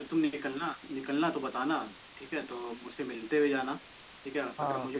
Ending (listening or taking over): listening